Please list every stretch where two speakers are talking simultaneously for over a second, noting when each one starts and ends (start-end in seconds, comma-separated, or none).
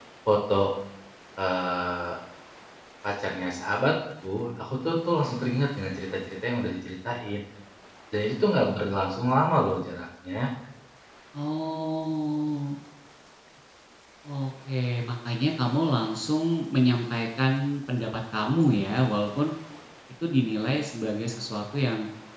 none